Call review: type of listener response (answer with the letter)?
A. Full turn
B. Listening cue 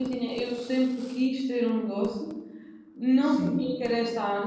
B